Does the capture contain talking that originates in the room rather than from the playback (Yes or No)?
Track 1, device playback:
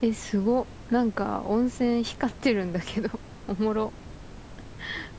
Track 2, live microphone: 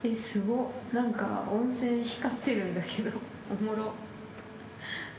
No